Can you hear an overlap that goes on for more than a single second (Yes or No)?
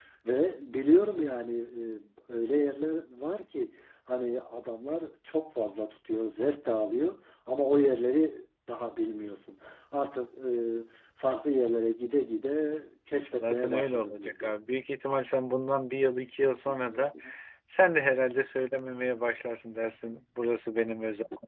Yes